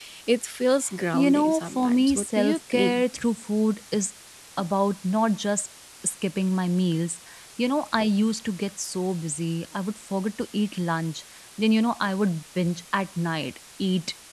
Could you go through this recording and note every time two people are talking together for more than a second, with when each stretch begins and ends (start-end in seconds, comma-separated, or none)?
1.1-3.0